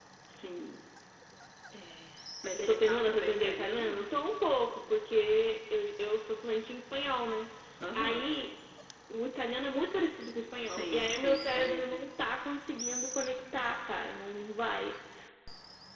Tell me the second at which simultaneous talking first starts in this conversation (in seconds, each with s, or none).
2.5 s